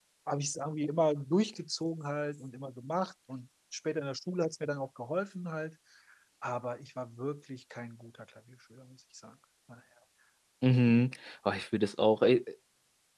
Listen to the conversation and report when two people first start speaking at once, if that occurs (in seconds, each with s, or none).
none